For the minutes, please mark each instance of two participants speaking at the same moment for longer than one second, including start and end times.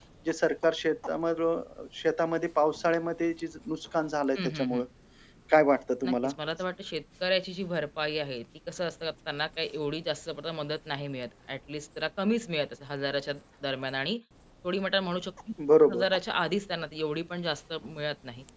none

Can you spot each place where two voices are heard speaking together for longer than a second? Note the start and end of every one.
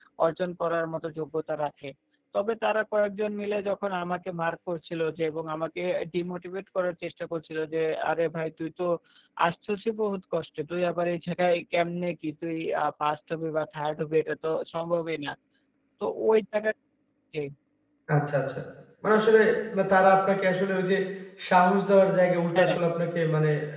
none

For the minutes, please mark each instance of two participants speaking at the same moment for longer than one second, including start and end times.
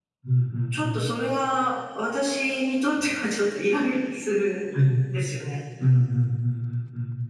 none

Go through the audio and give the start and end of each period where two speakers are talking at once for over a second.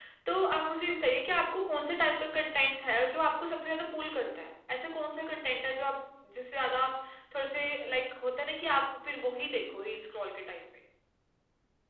none

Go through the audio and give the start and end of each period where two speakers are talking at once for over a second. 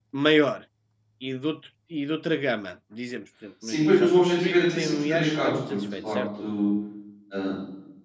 3.6-6.5

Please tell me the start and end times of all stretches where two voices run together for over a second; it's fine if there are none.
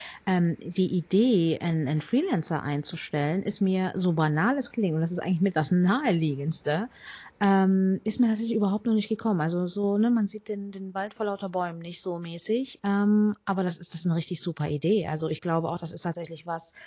none

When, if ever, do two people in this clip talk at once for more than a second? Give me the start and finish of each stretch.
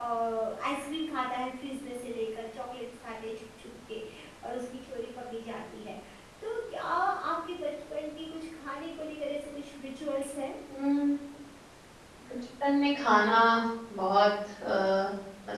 none

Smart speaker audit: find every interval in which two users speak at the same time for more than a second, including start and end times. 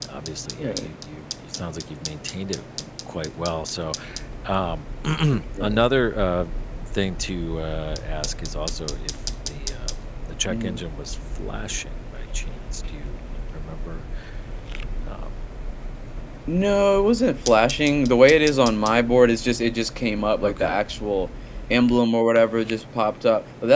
none

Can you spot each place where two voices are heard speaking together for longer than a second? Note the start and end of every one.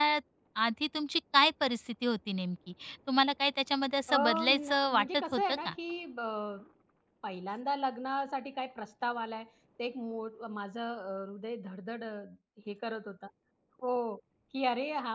4.1-5.7

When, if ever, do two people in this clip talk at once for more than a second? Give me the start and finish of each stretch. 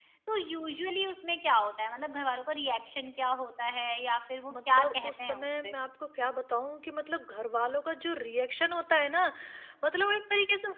4.5-5.8

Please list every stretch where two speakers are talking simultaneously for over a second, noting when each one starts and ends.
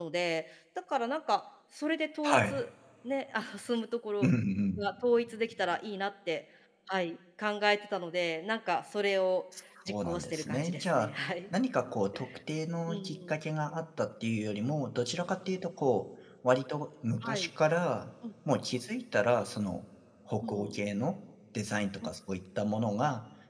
9.9-11.1

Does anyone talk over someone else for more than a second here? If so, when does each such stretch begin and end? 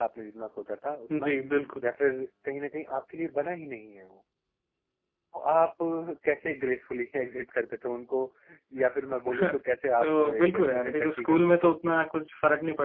10.0-11.8

